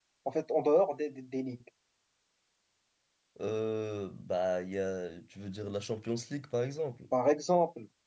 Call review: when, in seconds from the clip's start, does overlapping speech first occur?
none

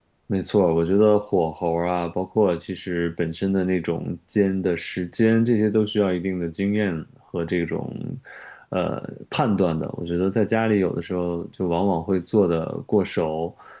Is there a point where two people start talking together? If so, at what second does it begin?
none

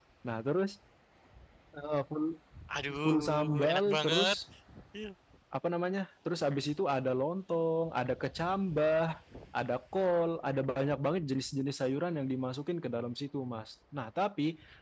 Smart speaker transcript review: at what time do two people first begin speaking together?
3 s

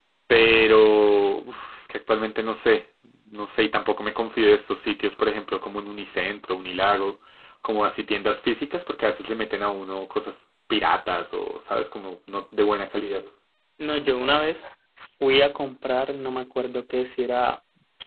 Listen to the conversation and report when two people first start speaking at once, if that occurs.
none

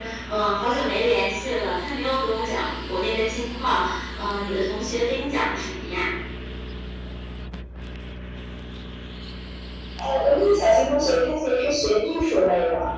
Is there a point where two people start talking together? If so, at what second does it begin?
none

